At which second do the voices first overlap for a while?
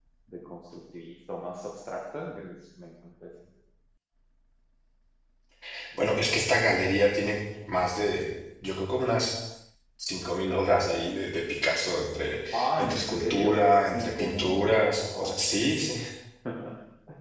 12.5 s

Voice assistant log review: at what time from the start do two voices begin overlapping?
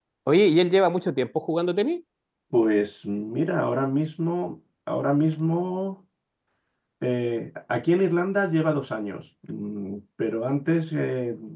none

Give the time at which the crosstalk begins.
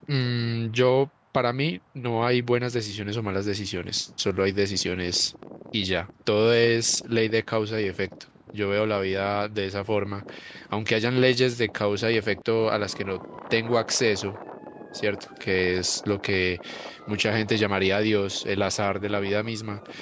none

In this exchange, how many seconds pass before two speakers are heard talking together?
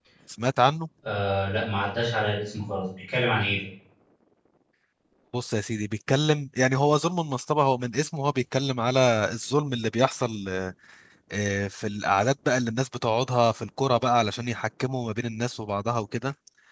none

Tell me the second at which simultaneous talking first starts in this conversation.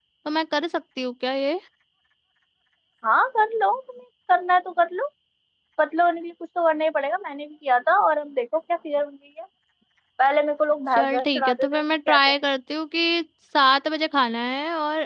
10.9 s

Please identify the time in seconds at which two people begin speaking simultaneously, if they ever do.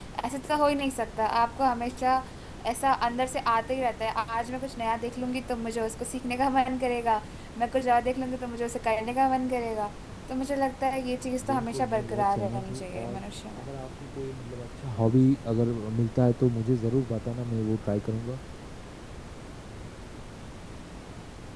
11.4 s

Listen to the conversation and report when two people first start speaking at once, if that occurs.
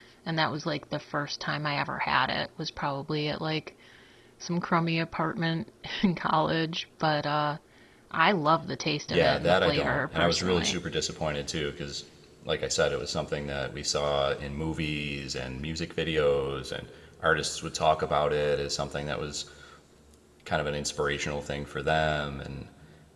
9.1 s

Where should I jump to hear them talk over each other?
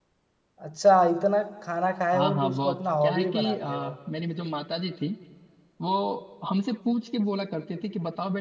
2.1 s

